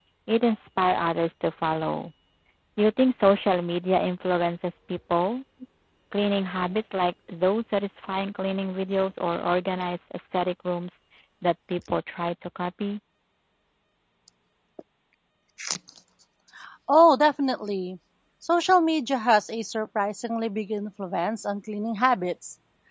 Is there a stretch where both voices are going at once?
No

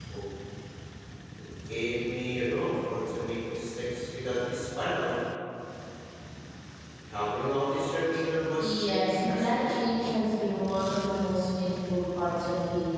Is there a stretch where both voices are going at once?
Yes, from 8.6 s

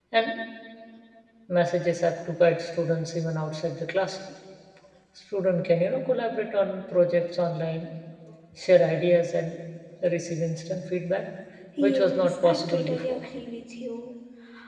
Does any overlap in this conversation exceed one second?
Yes, from 11.8 s

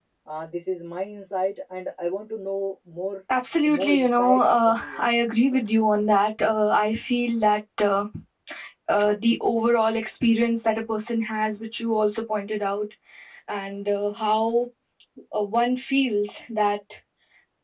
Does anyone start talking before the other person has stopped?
Yes, from 3.6 s

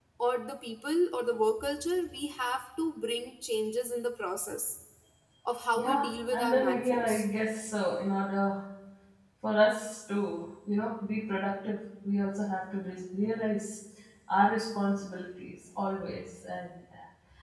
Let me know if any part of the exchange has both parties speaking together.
Yes, from 5.8 s

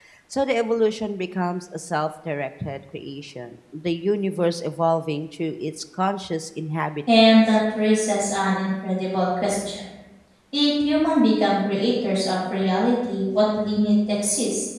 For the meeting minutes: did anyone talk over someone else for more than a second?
No

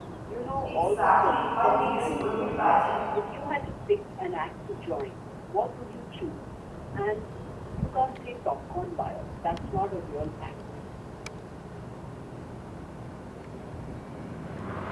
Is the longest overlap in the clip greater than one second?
Yes, from 0.7 s

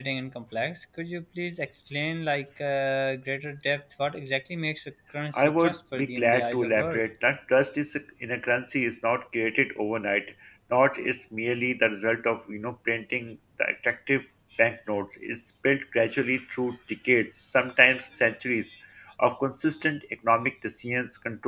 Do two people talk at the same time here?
Yes, from 5.3 s

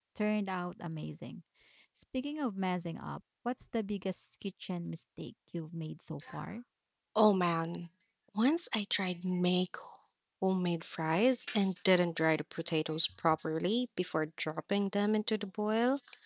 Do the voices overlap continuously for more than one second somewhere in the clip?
No

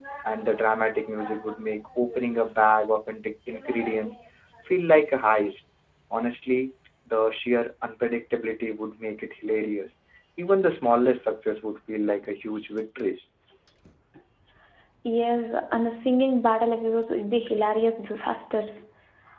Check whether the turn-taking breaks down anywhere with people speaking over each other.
No

